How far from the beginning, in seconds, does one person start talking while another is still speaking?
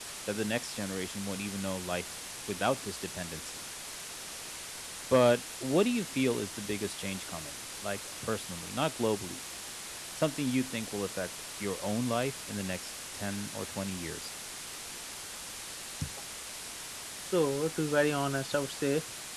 none

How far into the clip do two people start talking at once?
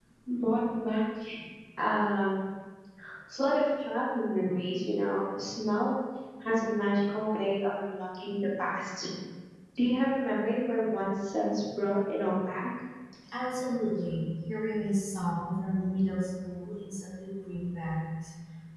none

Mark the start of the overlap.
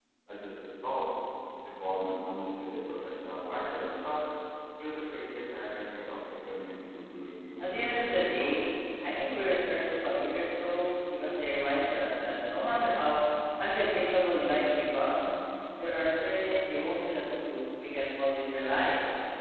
7.6 s

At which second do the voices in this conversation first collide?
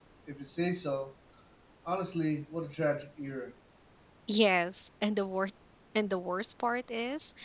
none

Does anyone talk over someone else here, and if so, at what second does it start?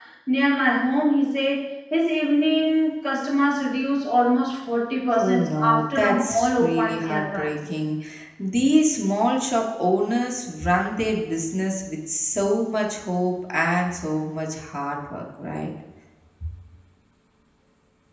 5.2 s

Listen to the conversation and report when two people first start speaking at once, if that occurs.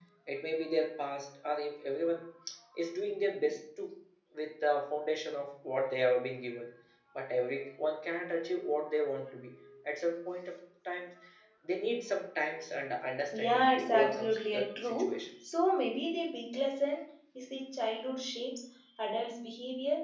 13.3 s

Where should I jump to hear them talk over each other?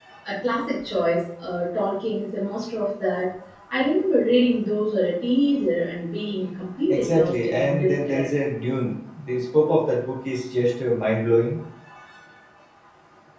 6.9 s

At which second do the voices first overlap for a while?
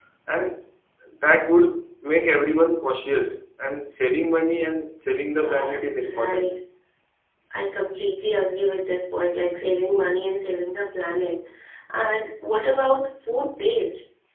5.3 s

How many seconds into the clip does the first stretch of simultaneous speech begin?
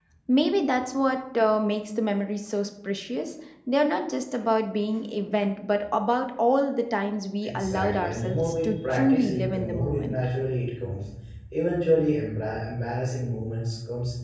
7.4 s

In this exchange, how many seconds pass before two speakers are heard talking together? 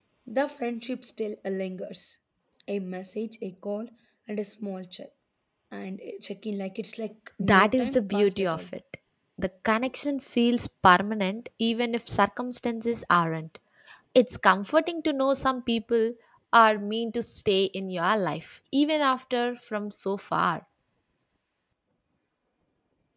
7.4 s

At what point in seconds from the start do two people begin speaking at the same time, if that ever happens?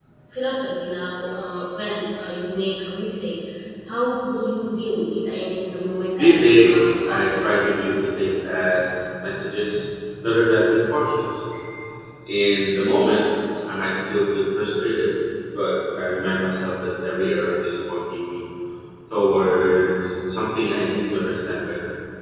6.2 s

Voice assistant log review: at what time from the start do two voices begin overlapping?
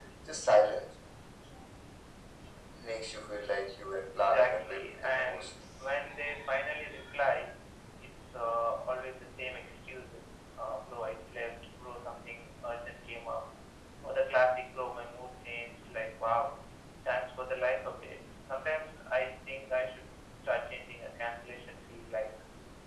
4.2 s

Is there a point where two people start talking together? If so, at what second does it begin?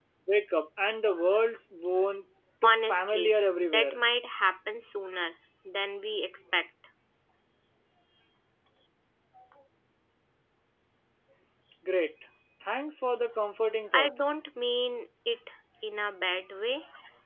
2.6 s

